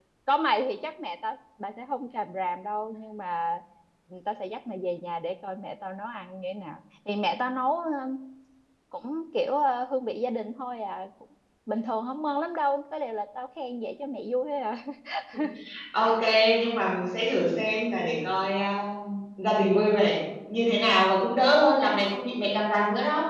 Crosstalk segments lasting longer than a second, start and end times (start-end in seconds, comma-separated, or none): none